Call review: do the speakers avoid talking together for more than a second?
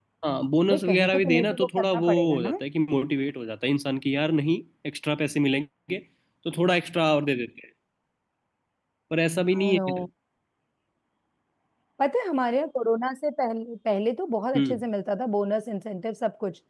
No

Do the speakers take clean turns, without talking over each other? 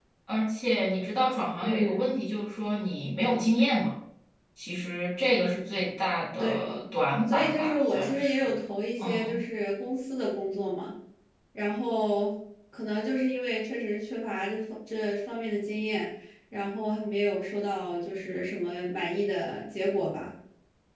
No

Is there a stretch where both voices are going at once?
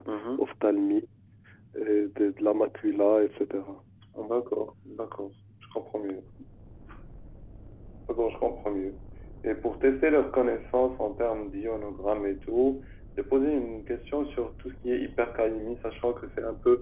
No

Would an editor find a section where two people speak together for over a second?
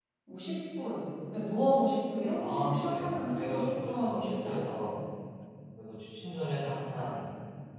Yes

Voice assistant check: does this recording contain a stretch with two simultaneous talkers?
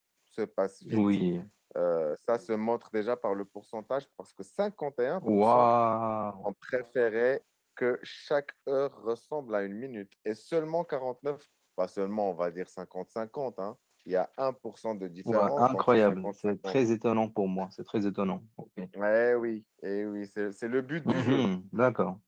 Yes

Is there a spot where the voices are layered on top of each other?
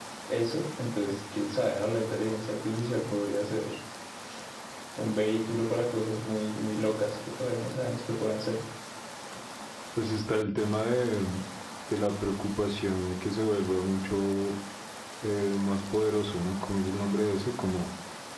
No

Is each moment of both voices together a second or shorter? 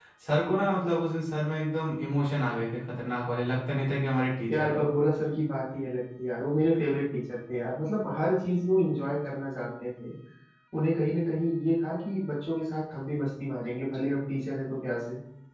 Yes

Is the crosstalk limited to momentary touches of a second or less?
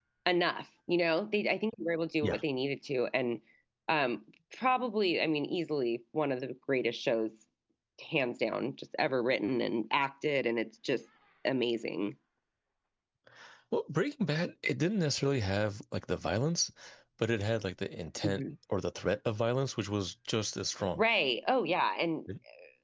Yes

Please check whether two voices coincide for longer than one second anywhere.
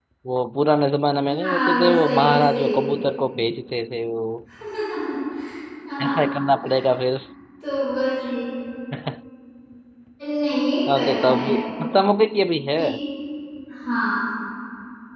Yes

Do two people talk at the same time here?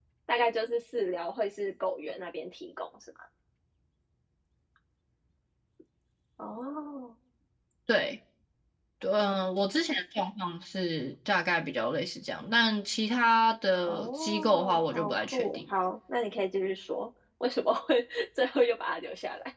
Yes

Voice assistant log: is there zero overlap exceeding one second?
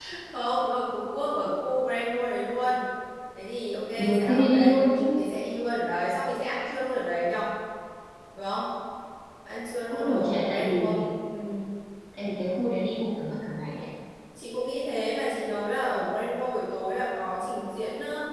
No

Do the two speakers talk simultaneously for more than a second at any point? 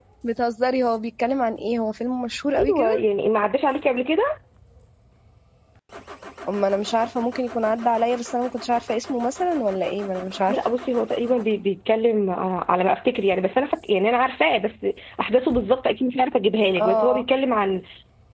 No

